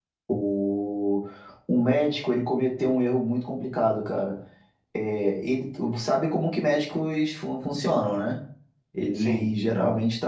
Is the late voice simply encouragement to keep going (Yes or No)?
Yes